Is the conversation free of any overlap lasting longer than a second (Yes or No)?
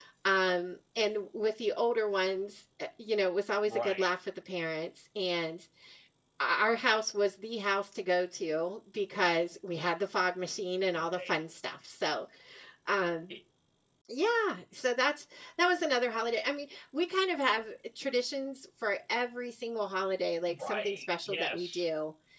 No